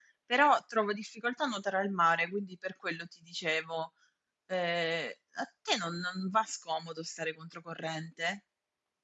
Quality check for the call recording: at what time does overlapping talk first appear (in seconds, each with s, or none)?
none